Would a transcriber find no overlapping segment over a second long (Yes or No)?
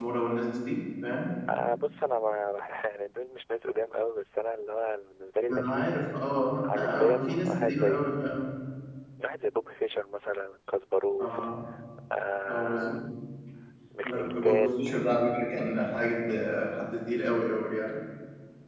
No